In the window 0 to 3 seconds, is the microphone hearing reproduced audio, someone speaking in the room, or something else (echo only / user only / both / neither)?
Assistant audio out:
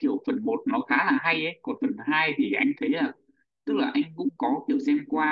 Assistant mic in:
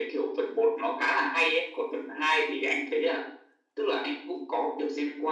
echo only